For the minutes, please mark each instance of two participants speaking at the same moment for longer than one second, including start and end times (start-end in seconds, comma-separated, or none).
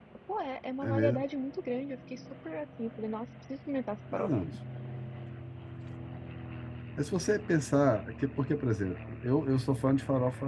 none